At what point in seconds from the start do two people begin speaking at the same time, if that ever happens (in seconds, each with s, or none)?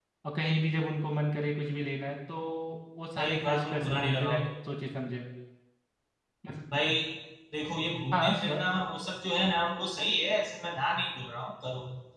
3.2 s